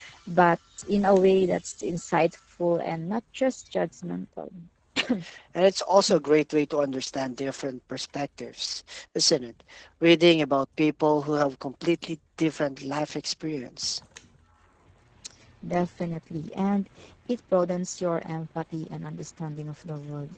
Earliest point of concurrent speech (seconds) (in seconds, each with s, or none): none